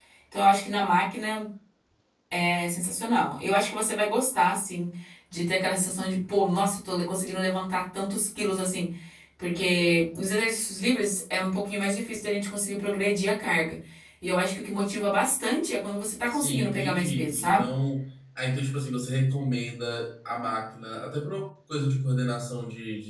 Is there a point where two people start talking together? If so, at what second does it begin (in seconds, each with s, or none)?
16.3 s